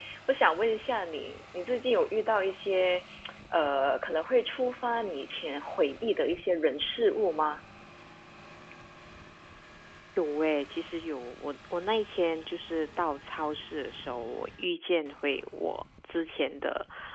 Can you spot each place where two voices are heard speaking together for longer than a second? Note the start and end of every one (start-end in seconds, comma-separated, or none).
none